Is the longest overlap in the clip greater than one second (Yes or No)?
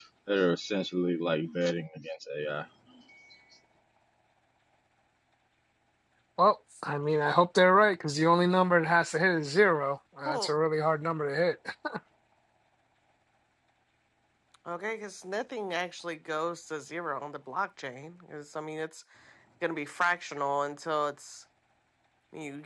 No